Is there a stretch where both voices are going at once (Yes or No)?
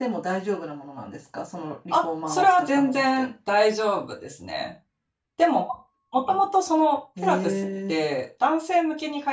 Yes